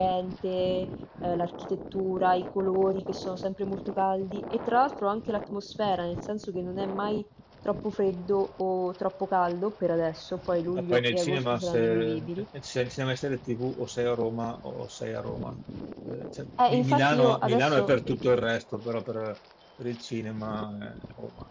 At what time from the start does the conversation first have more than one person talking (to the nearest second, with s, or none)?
11 s